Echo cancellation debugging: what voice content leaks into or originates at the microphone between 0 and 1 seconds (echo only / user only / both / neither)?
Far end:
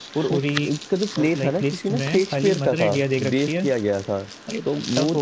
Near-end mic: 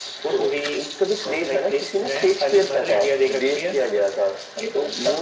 echo only